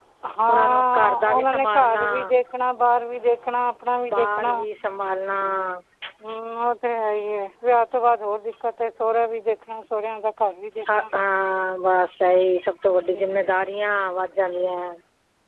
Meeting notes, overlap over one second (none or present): present